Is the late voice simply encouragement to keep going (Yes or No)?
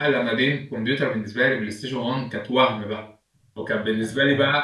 Yes